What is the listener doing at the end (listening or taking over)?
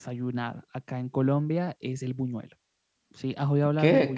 taking over